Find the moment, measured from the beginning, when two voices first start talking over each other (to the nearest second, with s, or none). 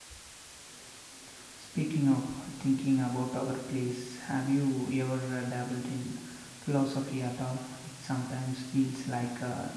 none